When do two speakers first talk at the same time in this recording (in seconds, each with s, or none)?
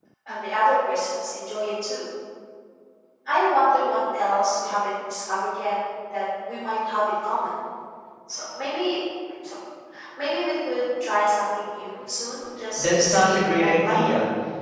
12.6 s